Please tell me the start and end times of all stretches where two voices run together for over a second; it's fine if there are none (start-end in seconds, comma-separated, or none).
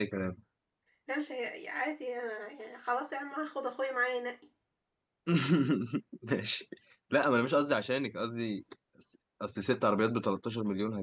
none